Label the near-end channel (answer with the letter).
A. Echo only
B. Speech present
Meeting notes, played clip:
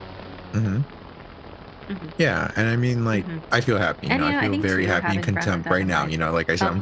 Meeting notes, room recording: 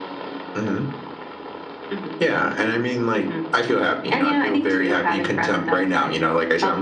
A